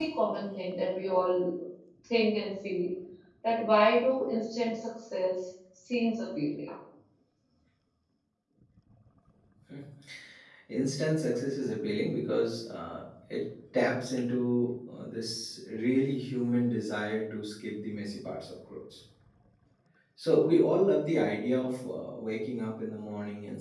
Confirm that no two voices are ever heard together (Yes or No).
Yes